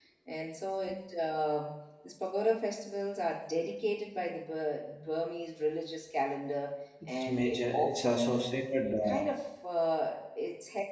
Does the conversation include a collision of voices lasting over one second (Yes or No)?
Yes